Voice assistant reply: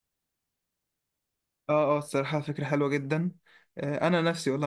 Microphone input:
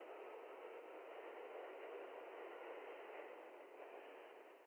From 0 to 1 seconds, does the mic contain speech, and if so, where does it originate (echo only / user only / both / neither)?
neither